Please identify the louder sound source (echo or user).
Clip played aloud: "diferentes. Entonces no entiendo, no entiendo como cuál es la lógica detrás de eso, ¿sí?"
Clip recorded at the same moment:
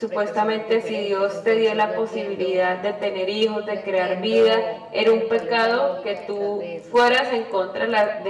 user